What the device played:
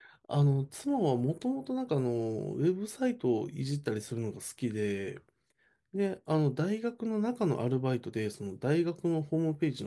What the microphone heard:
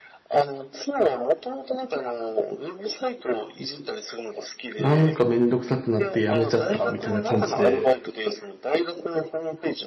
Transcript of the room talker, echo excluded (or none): なんかめんどくさくなって辞めちゃったみたいな感じで、